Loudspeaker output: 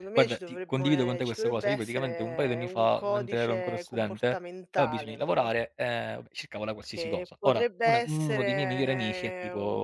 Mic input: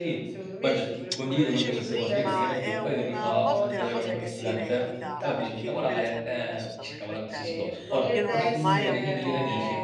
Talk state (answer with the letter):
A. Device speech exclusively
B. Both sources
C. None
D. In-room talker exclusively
B